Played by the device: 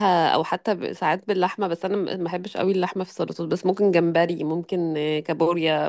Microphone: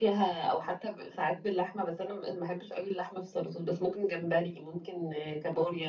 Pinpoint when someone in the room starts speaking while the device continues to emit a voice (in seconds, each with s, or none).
none